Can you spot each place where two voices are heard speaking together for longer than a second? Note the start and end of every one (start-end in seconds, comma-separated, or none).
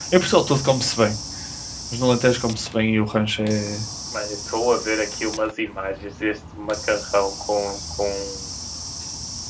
none